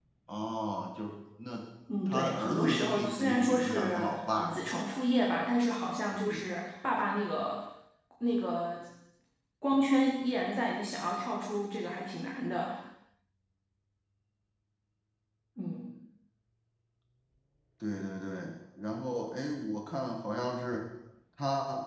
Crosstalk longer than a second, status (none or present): present